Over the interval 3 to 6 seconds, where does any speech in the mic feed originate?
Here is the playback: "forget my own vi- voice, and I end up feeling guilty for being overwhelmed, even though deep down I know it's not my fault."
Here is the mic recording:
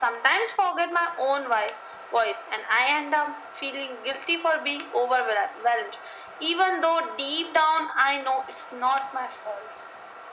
echo only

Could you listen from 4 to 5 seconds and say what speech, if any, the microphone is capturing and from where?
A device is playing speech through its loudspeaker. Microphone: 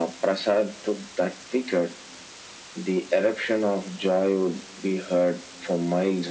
echo only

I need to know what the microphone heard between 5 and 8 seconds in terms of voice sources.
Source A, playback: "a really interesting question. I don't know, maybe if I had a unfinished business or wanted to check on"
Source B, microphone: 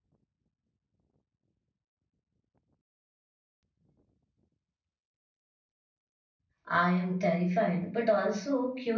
user only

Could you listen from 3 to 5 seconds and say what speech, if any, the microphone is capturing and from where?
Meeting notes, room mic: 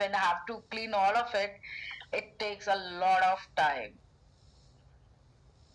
echo only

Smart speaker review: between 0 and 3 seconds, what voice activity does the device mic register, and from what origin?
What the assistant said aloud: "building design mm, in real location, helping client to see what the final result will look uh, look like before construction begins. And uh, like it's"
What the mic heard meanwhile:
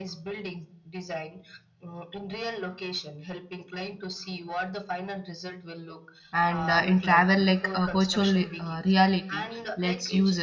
echo only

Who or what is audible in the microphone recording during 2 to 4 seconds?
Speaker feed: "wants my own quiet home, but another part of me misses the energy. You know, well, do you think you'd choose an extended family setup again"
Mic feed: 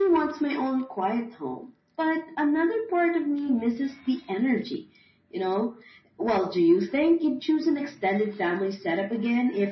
echo only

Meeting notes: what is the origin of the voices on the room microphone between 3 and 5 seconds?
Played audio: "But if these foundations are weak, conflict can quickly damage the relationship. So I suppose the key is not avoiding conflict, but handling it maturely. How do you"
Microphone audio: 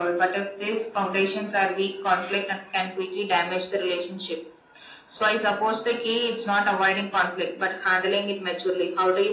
echo only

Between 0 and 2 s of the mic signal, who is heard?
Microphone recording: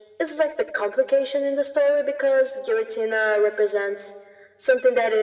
echo only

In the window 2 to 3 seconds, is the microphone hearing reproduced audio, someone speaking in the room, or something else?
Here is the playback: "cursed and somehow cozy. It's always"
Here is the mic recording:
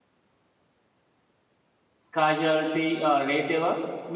user only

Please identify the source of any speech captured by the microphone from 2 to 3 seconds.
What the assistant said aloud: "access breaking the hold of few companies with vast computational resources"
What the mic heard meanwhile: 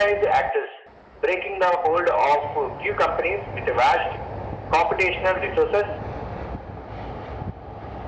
echo only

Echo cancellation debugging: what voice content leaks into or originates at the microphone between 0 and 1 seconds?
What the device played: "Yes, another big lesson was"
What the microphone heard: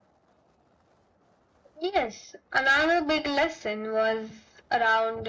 neither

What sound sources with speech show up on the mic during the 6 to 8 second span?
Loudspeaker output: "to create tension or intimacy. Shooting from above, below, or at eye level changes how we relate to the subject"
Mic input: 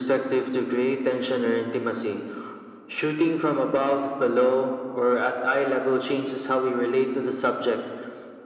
echo only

